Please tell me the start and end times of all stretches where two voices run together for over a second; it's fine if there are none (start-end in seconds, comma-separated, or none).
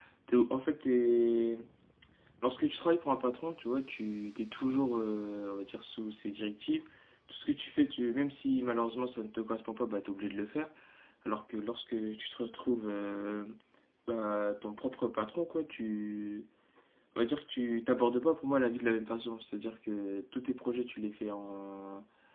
none